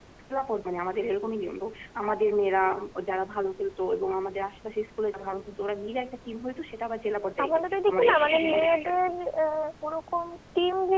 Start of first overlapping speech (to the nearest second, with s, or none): 7 s